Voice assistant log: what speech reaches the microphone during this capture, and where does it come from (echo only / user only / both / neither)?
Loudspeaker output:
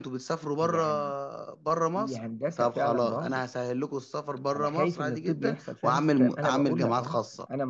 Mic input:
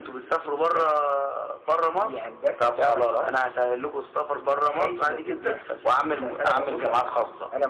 echo only